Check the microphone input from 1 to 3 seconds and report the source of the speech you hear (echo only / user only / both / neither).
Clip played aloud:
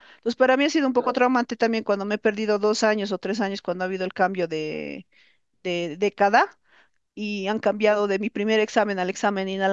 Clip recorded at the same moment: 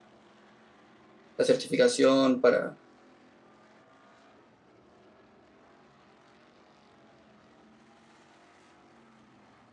user only